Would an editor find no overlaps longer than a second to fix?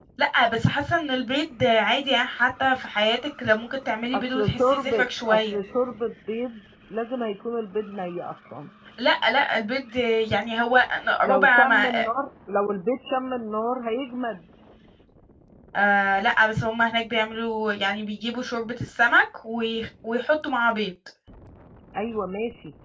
No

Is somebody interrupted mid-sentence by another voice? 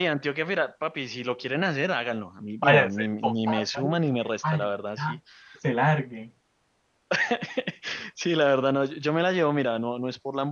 Yes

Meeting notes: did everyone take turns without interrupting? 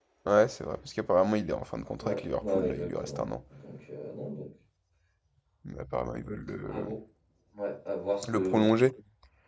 No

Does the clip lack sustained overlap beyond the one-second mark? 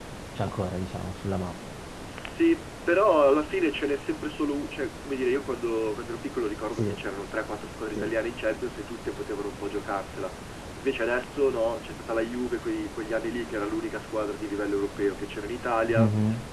Yes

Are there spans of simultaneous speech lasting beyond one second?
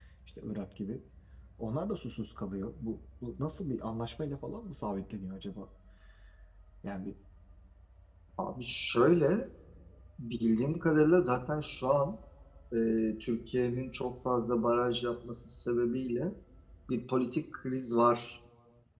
No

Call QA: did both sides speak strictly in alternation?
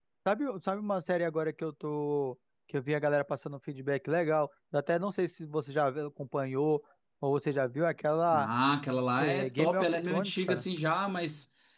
No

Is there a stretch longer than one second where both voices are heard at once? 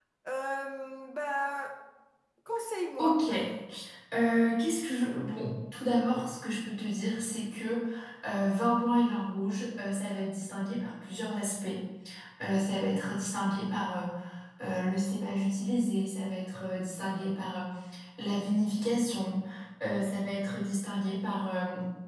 No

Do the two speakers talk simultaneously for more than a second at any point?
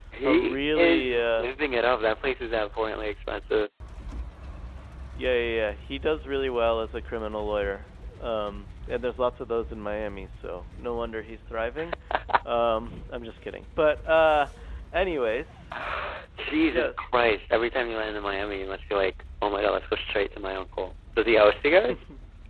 Yes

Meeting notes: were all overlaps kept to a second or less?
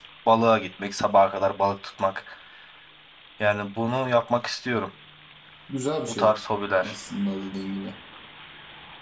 Yes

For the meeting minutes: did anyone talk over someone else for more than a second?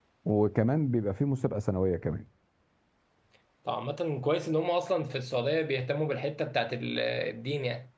No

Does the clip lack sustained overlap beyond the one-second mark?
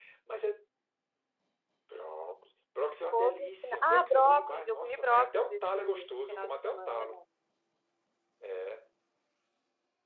No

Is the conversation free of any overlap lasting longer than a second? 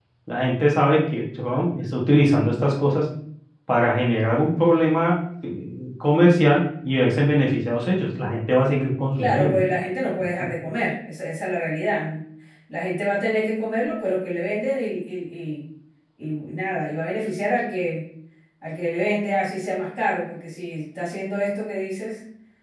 Yes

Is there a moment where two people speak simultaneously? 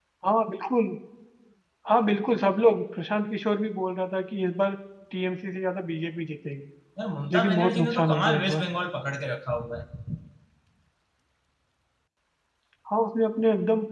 Yes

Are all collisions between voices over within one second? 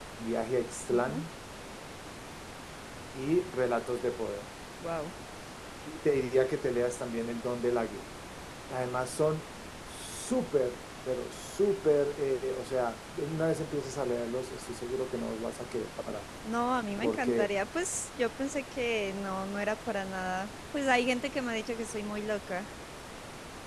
Yes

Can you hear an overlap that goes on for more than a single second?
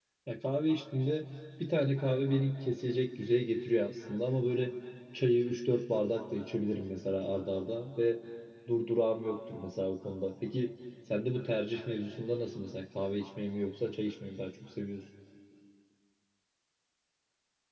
No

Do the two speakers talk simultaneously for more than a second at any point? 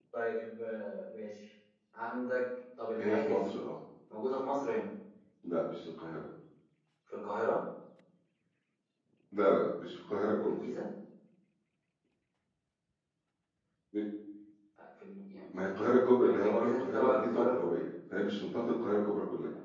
Yes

